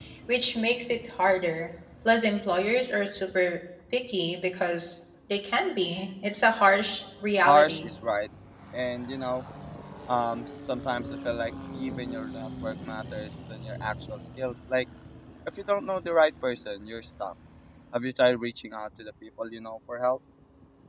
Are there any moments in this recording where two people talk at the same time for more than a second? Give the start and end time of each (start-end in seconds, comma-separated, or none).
none